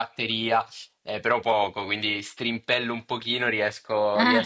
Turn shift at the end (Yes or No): No